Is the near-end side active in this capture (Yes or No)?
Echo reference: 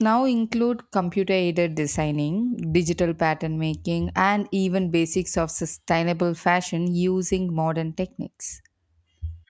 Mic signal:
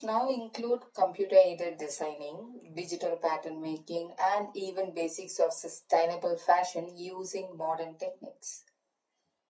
No